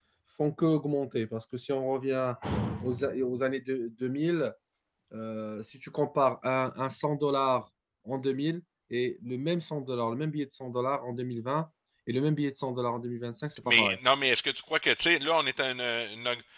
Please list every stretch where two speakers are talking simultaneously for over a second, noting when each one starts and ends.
none

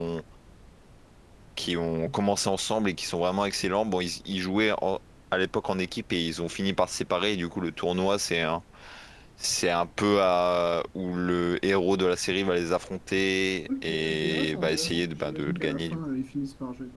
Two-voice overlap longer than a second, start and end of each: 13.8-16.0

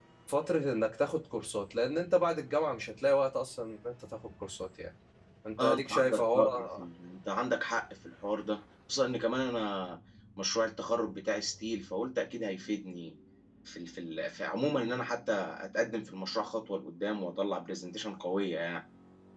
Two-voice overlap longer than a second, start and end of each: 5.6-6.8

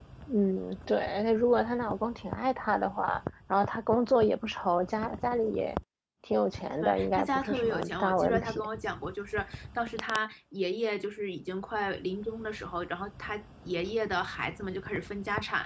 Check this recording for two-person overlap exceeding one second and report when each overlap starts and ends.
6.8-8.6

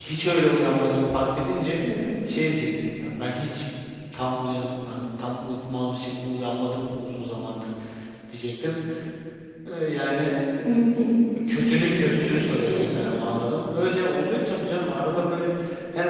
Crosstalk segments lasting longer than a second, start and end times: 11.8-13.2

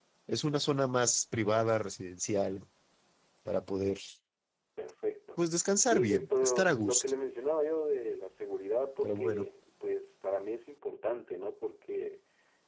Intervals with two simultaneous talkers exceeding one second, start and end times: 5.9-7.1

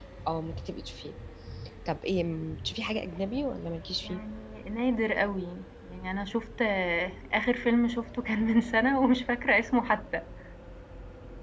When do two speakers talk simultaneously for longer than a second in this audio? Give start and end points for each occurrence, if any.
none

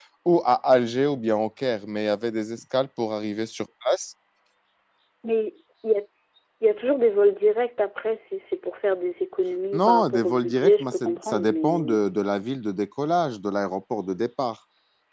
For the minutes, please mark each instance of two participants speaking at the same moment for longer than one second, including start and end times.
9.7-12.0

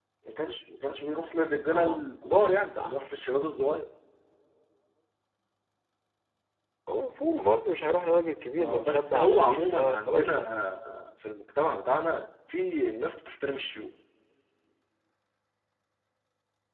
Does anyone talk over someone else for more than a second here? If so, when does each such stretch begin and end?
8.6-10.4

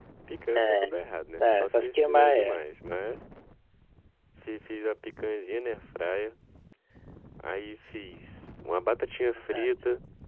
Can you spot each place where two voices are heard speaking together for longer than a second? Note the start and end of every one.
1.4-2.6

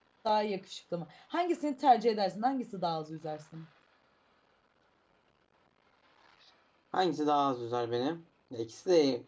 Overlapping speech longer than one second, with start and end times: none

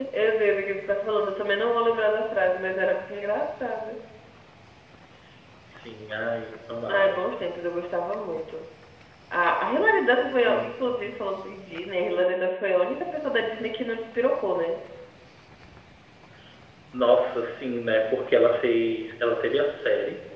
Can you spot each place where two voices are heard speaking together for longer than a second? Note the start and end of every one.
none

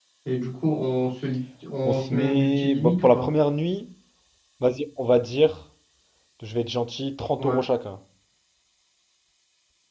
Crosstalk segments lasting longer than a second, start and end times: 1.8-3.3

